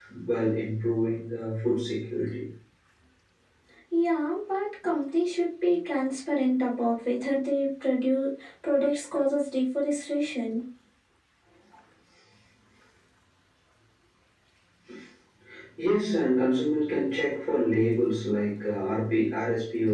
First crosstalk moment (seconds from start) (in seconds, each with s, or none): none